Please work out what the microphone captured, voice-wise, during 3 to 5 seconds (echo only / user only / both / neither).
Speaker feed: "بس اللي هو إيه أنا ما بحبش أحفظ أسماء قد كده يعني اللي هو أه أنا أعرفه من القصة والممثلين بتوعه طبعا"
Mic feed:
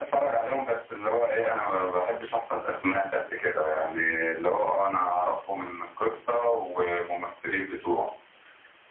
echo only